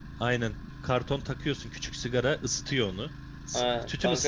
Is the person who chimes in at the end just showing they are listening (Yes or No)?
No